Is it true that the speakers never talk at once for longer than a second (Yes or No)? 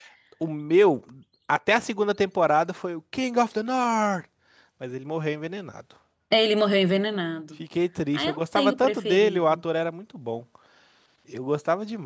No